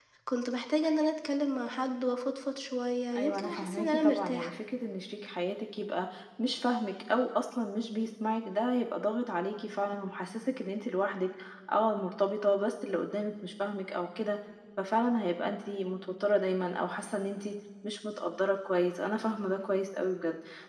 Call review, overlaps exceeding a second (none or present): present